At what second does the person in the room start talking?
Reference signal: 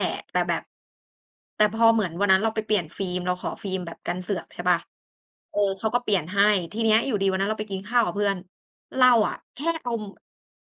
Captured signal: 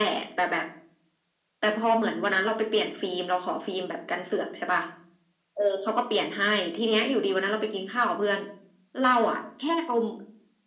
none

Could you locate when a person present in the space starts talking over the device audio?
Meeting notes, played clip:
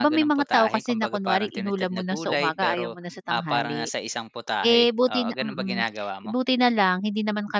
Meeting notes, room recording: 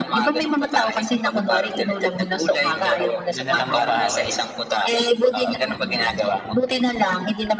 2.6 s

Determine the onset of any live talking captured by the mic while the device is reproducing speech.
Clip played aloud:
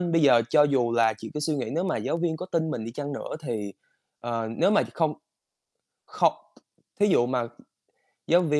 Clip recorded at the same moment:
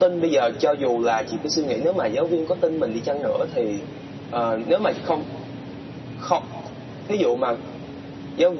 none

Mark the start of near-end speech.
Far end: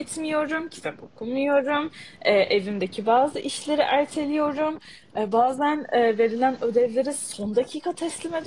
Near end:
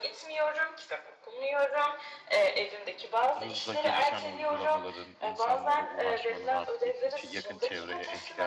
3.4 s

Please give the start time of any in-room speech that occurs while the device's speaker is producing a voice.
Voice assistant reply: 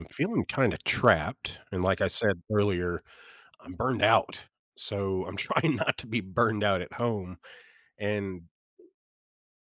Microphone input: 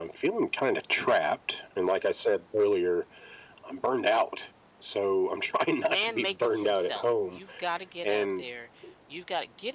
5.8 s

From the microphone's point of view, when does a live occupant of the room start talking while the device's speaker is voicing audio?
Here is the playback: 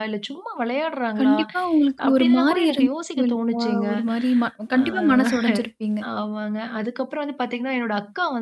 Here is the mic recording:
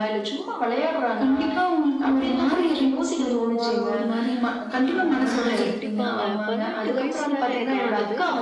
5.6 s

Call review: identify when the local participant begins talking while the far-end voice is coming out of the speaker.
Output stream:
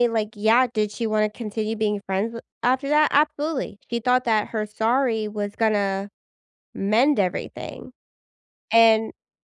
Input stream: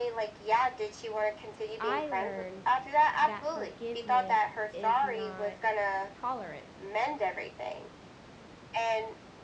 1.8 s

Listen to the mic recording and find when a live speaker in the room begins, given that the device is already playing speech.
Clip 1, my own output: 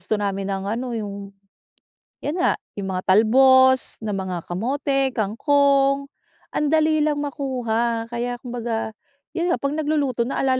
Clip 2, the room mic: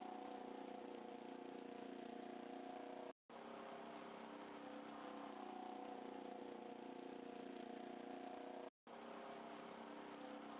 none

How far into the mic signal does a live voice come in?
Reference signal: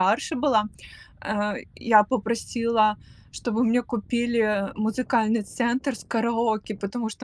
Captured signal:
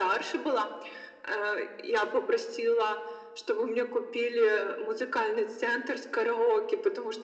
none

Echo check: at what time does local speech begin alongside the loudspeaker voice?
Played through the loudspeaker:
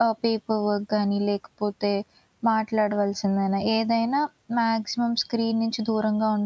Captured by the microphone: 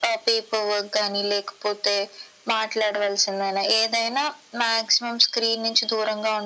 none

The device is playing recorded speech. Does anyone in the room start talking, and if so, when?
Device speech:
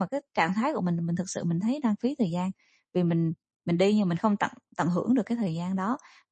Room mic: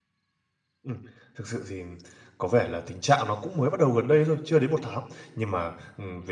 0.8 s

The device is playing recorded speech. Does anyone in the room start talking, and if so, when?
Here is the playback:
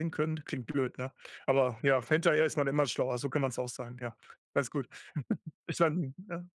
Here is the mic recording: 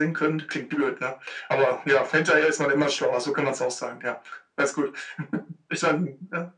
none

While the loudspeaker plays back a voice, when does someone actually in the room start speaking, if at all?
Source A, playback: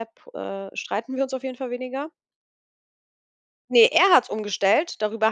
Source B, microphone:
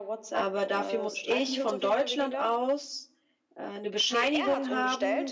0.3 s

